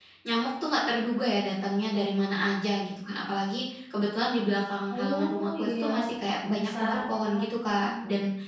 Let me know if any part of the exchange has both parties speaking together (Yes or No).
Yes